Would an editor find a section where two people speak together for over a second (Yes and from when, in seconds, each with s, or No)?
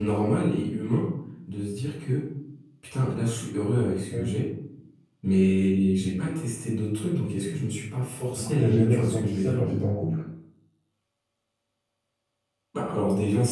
Yes, from 8.4 s